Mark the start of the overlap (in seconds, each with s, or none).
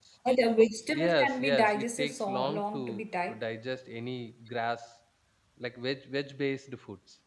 1.0 s